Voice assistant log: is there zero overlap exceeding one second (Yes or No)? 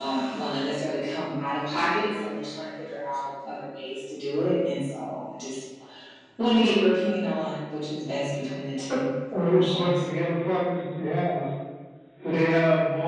Yes